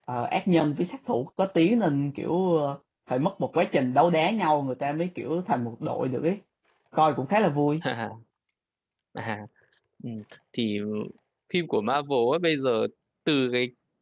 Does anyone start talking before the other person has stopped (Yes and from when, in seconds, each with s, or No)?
No